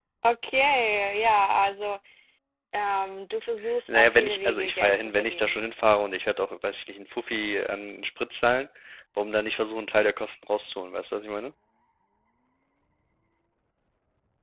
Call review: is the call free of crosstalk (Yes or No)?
No